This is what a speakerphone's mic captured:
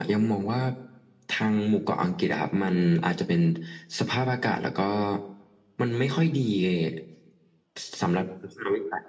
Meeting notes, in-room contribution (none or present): none